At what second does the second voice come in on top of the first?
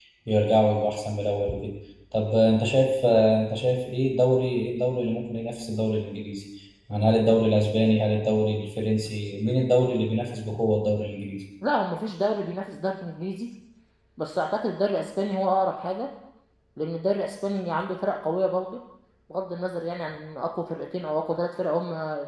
none

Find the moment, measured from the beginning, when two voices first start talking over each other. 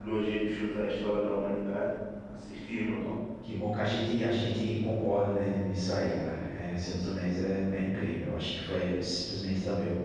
none

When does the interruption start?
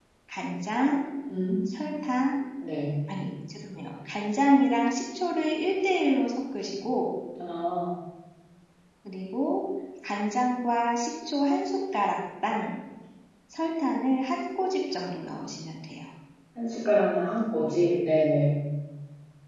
none

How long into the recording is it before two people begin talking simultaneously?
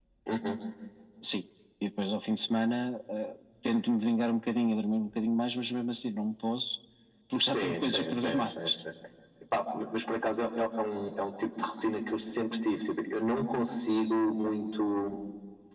7 s

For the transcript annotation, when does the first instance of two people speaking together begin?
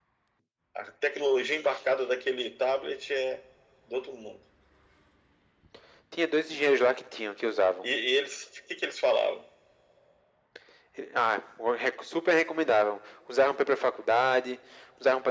none

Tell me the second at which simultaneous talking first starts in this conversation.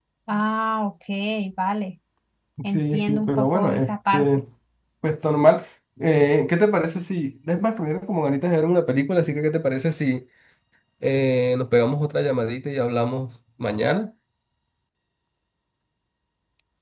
3 s

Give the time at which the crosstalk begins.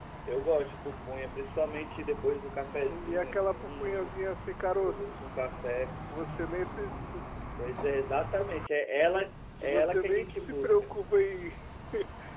3 s

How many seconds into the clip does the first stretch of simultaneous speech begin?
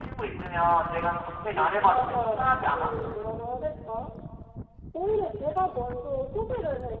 2 s

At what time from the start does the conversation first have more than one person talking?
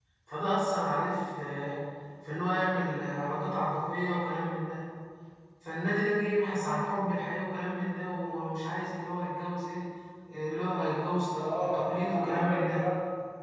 11 s

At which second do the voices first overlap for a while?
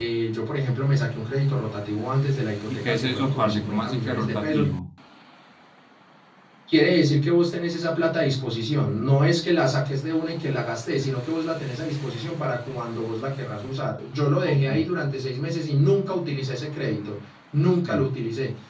3 s

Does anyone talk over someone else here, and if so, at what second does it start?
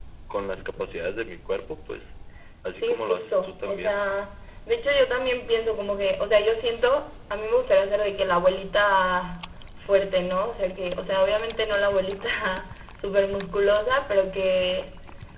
3 s

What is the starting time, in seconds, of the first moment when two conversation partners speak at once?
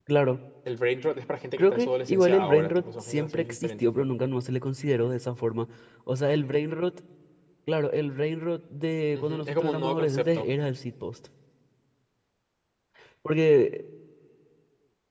2 s

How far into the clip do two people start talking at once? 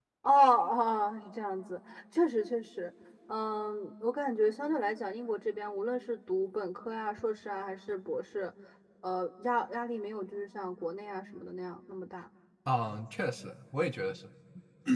none

